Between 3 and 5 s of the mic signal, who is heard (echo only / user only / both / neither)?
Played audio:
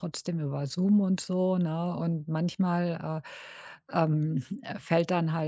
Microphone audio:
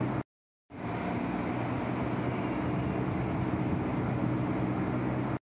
neither